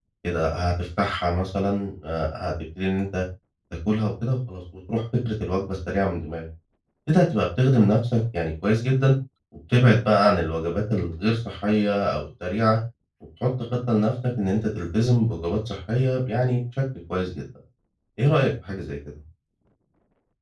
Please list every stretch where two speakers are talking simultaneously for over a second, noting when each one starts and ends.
none

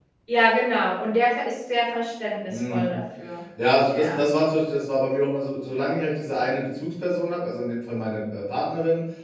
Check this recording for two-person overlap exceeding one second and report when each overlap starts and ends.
none

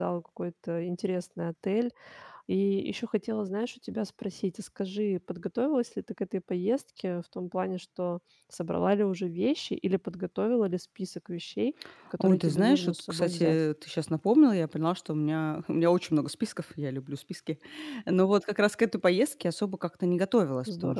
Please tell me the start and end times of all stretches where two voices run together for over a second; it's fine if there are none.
12.2-13.6

